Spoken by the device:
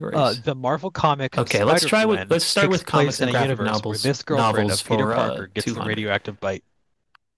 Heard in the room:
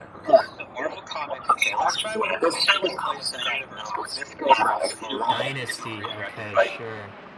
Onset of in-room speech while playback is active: 5.3 s

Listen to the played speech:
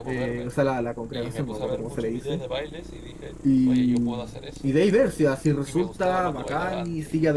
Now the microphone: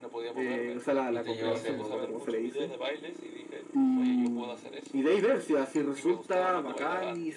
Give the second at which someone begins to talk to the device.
1.1 s

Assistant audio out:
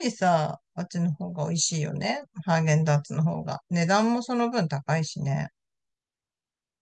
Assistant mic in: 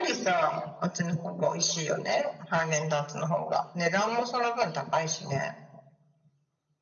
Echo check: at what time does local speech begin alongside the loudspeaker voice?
none

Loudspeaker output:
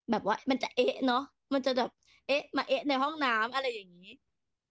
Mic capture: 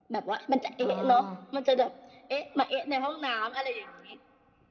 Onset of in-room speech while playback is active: 0.8 s

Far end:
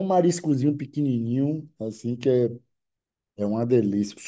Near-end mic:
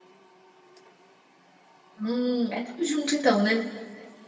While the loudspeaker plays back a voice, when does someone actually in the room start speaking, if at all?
2.0 s

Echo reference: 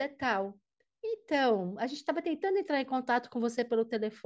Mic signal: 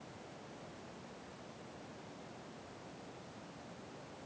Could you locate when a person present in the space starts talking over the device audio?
none

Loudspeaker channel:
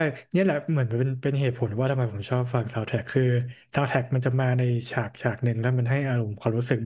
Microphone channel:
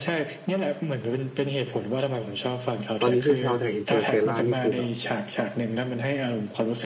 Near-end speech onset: 3.0 s

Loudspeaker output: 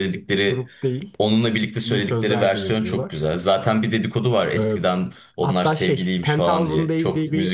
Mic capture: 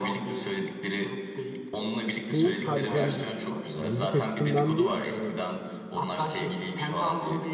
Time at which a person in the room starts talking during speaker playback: 2.2 s

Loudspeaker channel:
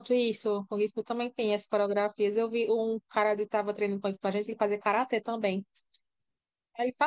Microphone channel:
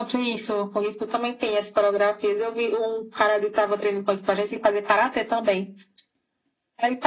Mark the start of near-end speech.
none

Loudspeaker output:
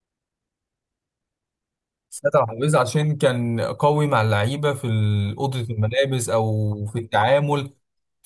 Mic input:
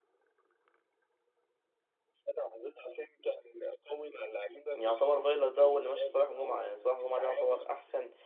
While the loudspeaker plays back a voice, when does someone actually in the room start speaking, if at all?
4.8 s

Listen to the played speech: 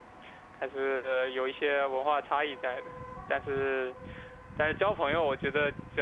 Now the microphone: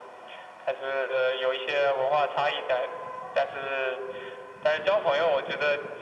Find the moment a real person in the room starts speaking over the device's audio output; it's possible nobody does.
none

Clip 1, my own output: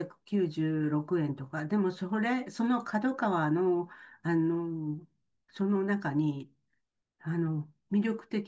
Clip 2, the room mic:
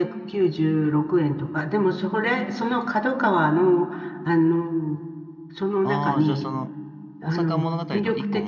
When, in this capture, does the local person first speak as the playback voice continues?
5.8 s

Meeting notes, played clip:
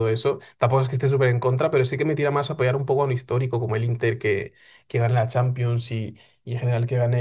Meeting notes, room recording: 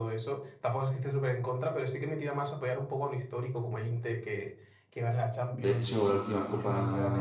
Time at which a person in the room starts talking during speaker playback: 5.5 s

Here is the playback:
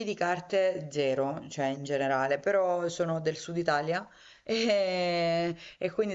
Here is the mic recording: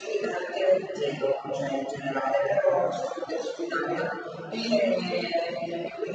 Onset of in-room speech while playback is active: none

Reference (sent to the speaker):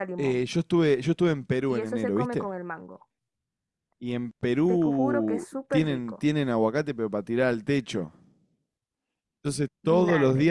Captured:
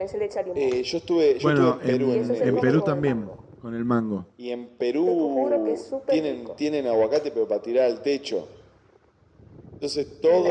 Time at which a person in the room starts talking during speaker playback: 1.4 s

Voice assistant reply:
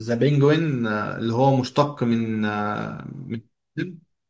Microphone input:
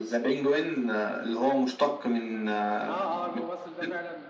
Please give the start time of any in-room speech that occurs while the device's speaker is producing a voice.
2.9 s

